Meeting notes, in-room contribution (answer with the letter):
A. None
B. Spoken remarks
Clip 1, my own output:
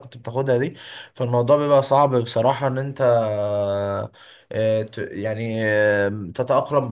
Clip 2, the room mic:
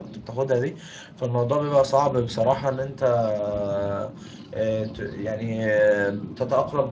A